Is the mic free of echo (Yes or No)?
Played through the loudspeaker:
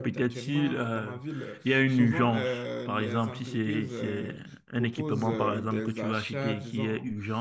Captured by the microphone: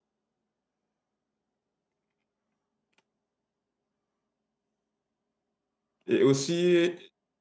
Yes